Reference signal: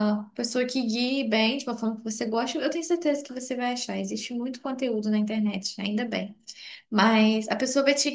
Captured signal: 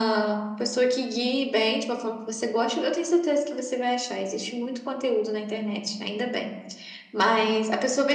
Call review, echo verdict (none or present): present